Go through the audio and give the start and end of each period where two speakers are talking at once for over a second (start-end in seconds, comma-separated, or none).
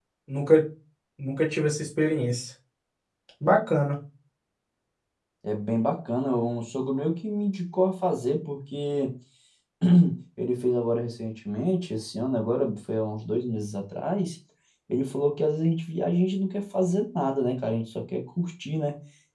none